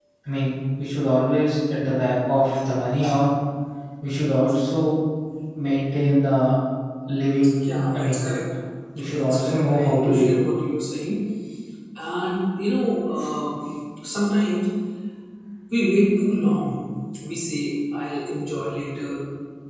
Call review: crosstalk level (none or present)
present